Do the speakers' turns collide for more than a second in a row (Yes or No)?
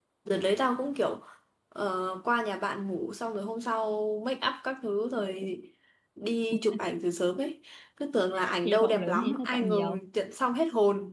Yes